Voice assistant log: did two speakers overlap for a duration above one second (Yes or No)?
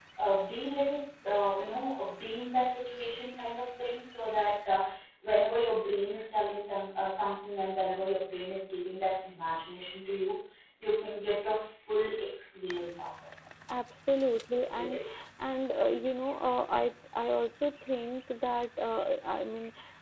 No